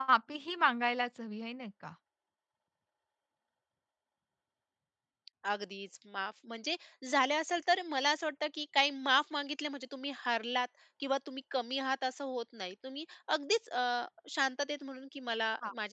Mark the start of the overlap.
none

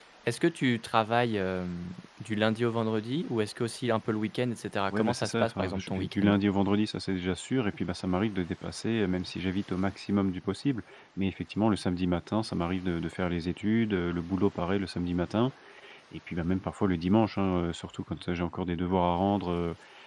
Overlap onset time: 5 s

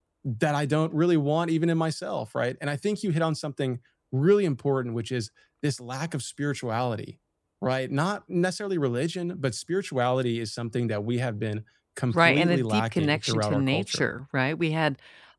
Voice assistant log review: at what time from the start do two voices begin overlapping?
12 s

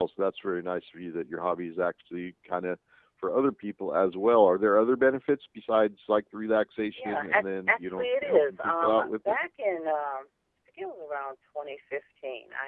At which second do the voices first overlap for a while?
7 s

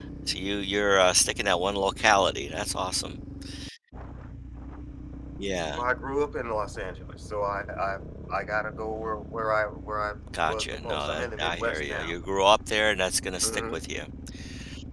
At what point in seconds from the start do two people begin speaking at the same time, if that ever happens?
10 s

